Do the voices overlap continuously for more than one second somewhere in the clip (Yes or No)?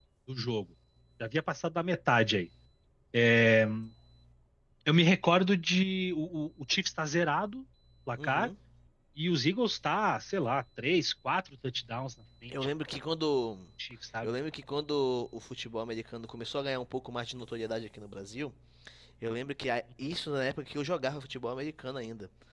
No